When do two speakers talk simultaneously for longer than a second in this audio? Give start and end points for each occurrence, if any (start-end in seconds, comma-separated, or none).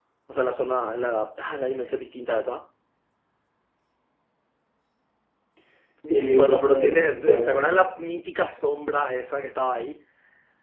6.3-7.6